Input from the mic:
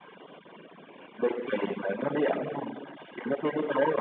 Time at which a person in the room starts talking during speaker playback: none

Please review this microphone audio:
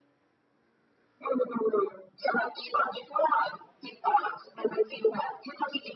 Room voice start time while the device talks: none

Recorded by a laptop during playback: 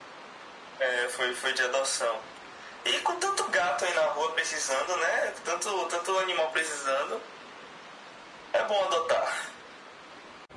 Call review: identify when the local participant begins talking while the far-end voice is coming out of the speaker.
none

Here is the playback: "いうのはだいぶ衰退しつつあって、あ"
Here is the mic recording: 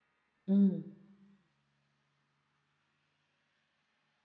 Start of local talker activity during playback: 0.4 s

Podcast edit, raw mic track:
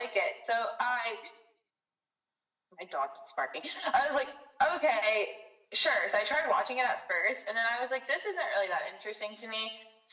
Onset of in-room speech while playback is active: none

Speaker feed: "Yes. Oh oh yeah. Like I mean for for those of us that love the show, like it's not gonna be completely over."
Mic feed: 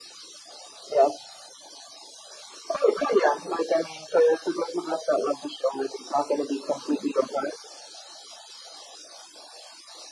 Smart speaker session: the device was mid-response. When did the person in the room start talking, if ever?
none

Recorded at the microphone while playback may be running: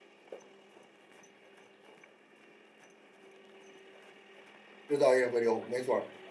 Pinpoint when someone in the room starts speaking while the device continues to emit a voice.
4.9 s

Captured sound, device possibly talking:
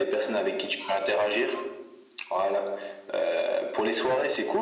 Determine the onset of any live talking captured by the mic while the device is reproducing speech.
none

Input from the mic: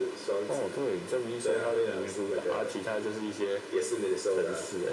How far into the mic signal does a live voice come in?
none

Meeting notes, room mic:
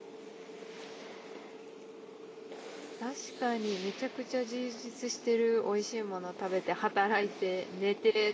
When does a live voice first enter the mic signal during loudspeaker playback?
3.0 s

